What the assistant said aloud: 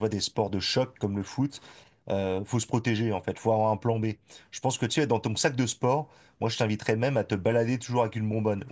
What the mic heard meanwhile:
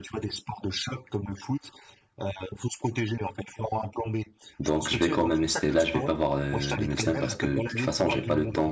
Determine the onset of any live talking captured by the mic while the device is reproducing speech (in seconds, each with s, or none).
4.6 s